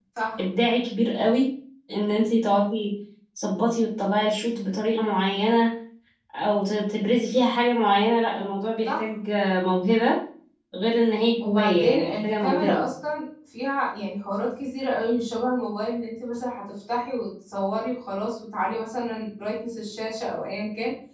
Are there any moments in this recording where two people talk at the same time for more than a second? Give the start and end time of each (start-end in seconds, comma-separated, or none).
11.4-12.8